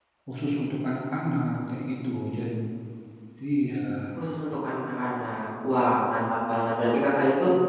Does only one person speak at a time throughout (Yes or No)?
Yes